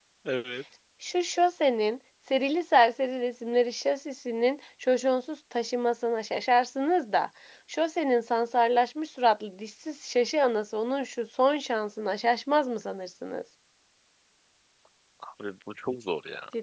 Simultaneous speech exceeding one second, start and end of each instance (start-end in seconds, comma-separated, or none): none